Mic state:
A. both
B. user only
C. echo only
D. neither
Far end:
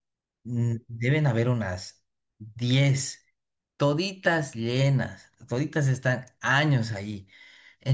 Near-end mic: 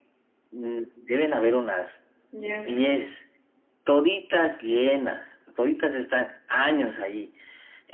A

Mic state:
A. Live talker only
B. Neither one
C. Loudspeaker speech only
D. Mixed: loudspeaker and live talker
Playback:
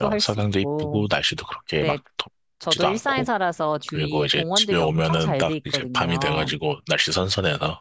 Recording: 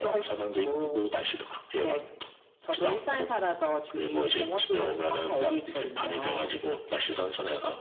C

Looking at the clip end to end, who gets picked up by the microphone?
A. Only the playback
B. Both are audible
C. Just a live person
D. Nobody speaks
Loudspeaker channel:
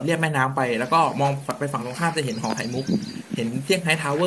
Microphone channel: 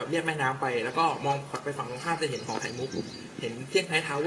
A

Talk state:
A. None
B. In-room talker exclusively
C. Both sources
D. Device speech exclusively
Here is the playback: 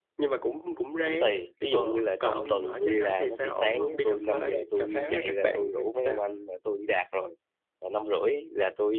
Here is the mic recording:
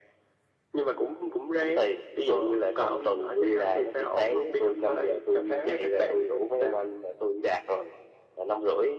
D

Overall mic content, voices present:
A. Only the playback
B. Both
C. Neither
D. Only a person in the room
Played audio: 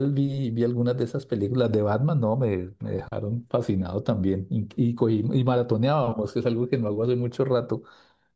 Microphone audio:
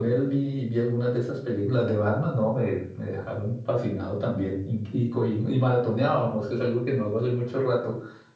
A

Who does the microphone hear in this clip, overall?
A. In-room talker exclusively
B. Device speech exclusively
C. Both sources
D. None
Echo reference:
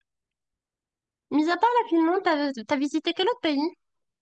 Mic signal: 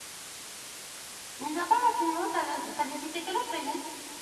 B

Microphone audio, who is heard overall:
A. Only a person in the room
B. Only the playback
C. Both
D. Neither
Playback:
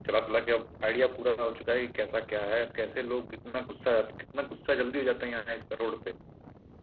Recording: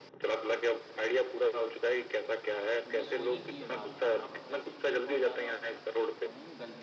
C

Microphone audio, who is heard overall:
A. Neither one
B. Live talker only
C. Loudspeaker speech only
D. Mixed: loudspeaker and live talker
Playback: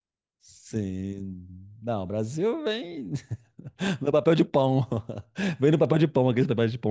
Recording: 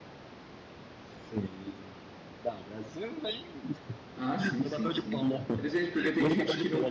D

